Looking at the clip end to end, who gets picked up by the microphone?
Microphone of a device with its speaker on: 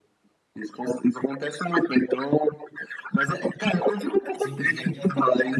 both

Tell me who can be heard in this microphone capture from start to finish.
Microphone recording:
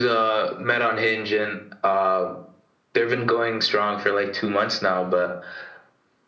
echo only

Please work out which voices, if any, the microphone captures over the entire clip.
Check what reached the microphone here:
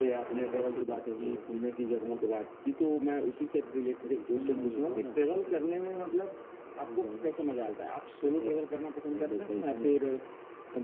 both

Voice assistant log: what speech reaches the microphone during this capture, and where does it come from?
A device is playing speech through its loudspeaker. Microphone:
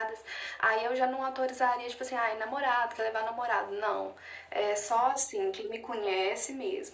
echo only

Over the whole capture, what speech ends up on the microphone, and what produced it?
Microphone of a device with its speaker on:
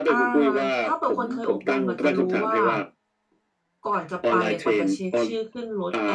both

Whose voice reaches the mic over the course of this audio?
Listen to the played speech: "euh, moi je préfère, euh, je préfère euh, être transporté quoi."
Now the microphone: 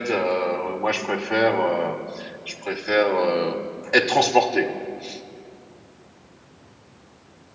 echo only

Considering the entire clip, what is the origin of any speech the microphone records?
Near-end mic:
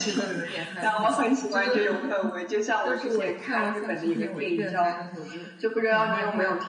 echo only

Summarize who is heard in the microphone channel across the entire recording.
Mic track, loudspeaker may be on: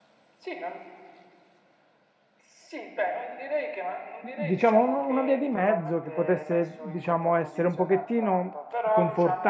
both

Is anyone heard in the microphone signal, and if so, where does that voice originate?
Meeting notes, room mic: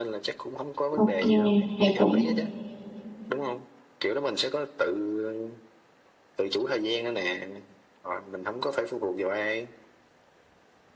both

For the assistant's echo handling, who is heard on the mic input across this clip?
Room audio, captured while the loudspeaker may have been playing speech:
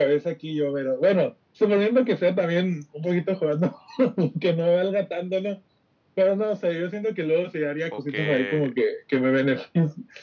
both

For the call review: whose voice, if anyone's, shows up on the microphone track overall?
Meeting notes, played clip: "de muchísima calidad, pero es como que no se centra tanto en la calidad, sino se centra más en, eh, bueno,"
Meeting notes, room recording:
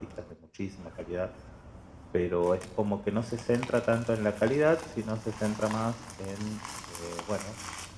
echo only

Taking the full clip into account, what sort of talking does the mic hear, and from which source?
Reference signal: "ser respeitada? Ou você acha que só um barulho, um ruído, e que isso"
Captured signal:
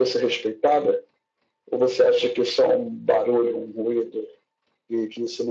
echo only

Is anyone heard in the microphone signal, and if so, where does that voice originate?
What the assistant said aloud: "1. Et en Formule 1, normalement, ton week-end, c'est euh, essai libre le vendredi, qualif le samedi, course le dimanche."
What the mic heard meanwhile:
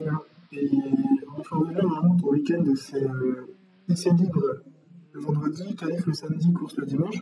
echo only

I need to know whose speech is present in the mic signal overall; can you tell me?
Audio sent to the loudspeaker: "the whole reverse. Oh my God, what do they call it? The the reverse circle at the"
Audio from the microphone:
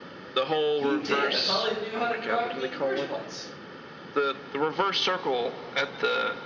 both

